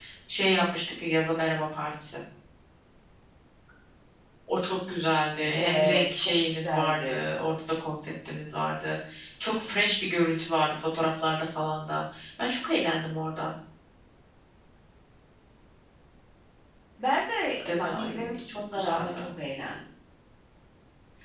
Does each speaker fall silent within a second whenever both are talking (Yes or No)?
No